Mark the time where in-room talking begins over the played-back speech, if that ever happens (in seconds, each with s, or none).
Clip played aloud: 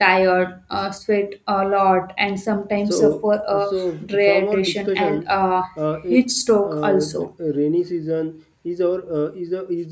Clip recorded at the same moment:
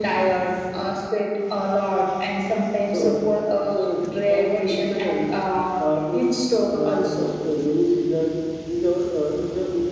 none